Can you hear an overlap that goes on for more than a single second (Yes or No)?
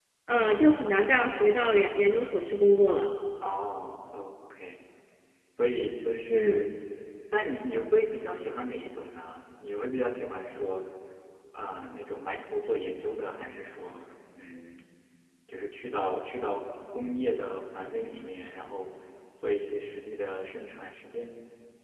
No